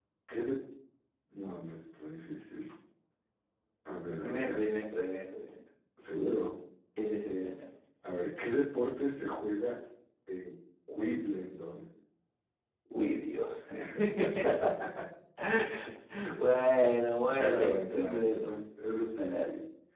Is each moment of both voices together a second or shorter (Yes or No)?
No